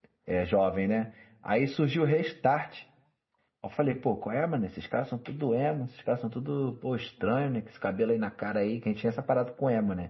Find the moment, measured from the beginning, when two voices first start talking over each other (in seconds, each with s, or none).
none